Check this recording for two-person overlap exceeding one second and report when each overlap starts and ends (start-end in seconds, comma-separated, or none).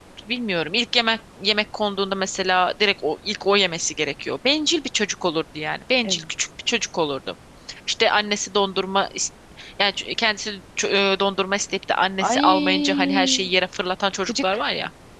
12.2-13.5